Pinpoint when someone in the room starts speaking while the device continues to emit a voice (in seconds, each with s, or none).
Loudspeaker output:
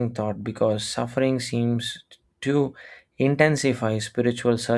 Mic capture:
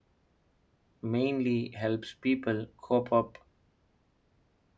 1.0 s